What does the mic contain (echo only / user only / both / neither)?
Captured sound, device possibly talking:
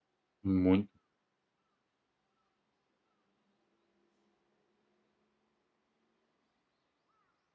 user only